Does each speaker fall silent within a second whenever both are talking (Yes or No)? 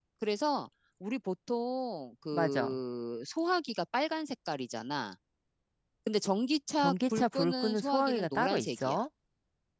No